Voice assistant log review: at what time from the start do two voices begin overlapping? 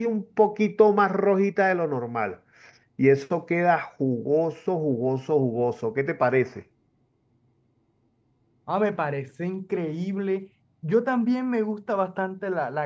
none

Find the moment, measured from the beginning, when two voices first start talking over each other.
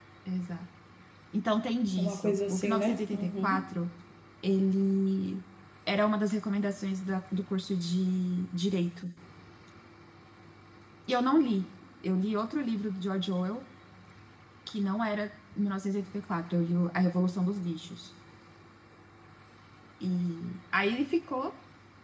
2.0 s

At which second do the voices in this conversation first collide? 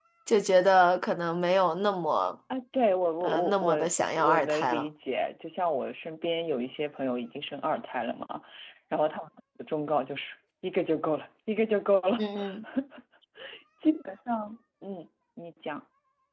3.2 s

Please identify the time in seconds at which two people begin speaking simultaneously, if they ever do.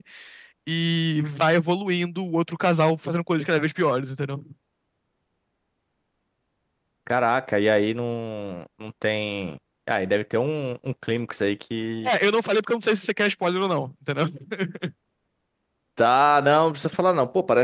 none

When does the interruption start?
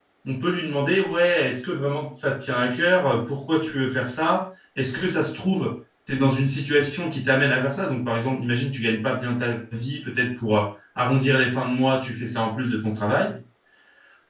none

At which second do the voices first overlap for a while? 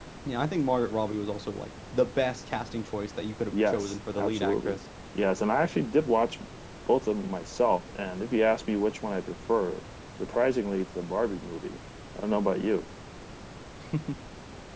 3.5 s

